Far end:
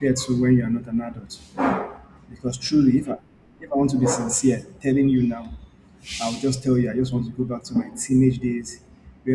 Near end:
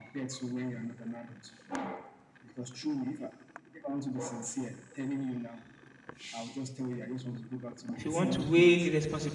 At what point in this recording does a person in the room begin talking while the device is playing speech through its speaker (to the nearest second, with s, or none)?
8 s